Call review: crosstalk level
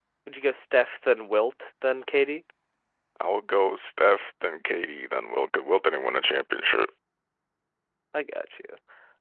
none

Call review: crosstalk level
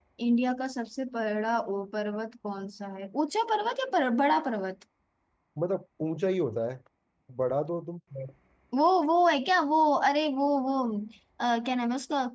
none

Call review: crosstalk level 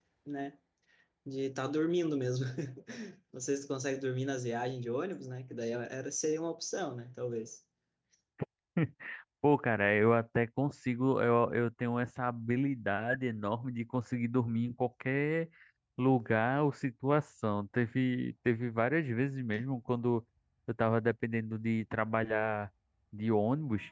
none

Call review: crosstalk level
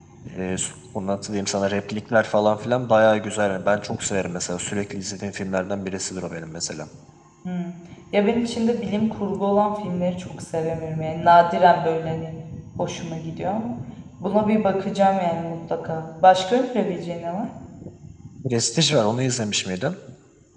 none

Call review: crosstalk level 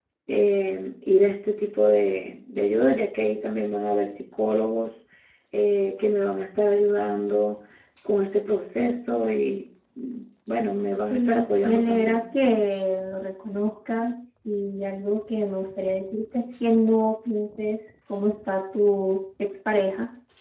present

